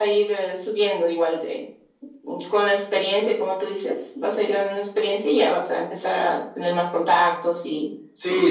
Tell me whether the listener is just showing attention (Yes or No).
No